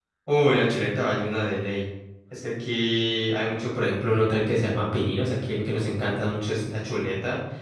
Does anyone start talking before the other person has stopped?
No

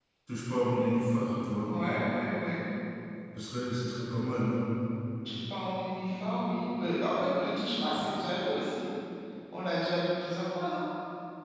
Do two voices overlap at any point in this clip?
No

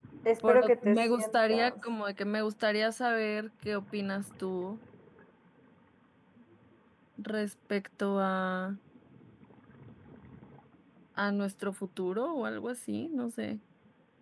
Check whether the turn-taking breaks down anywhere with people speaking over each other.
Yes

